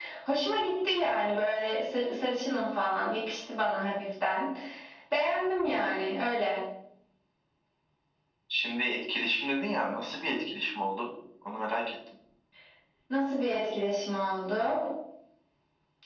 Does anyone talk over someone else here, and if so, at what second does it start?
none

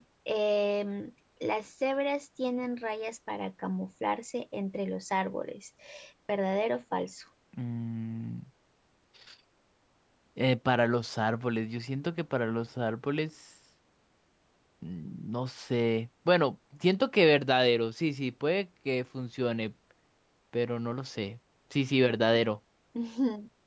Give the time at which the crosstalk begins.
none

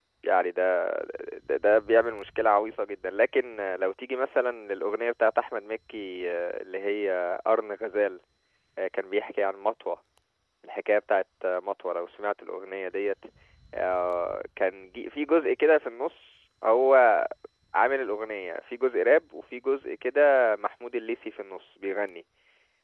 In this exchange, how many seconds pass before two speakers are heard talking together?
none

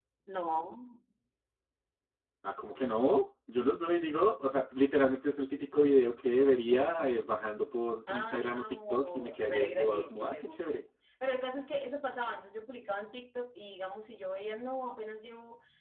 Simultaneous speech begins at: 8.1 s

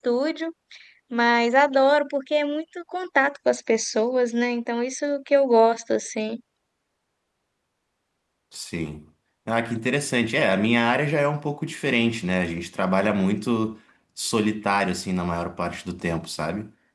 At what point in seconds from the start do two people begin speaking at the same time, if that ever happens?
none

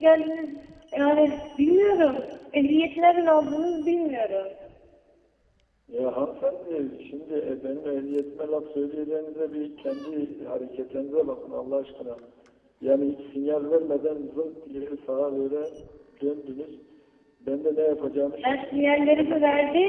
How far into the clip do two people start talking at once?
18.4 s

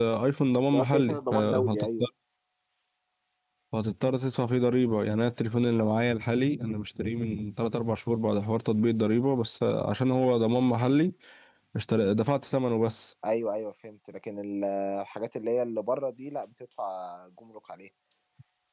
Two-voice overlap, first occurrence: 0.7 s

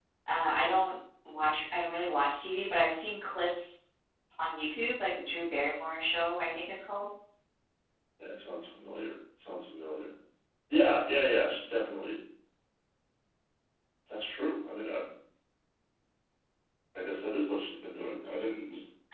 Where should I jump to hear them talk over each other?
none

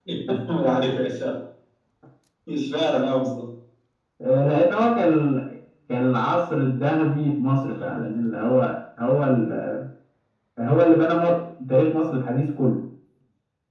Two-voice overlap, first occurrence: none

